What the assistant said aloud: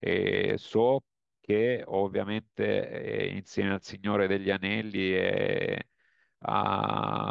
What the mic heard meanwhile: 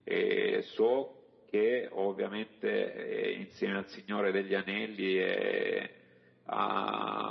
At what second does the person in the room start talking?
none

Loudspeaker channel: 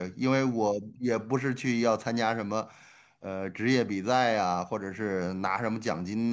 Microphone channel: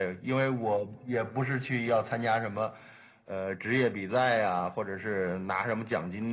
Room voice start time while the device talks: none

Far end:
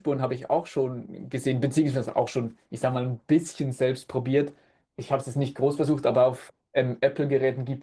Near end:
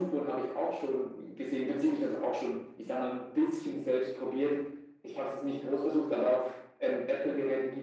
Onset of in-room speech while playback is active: none

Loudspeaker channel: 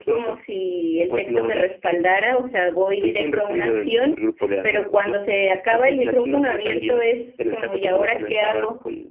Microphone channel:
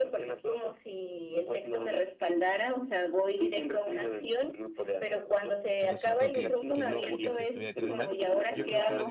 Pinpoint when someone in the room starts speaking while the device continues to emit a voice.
5.8 s

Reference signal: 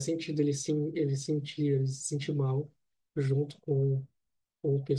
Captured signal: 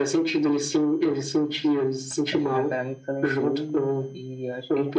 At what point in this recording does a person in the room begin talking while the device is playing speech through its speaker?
2.3 s

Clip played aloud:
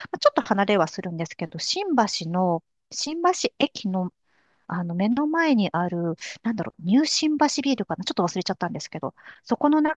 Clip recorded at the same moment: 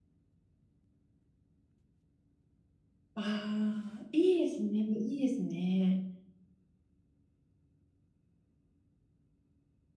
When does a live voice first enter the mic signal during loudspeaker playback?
3.1 s

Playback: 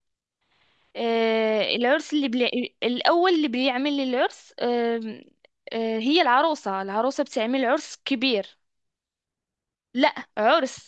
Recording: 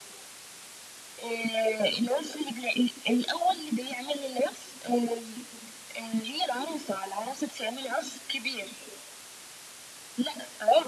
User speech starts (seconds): none

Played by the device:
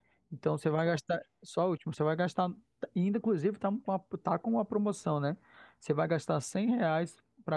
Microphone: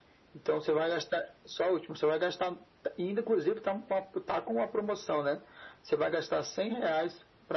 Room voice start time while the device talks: none

